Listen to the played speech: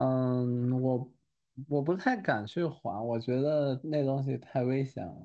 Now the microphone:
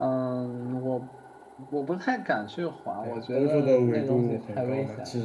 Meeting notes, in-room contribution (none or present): present